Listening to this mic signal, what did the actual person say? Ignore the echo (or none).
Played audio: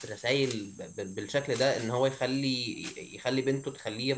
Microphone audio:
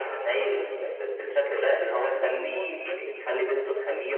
منه وهو بيتكلم